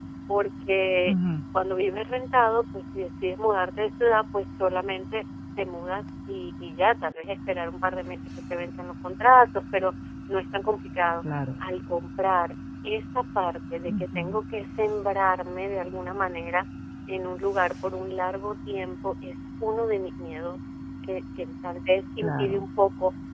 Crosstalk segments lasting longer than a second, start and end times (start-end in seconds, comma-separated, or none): none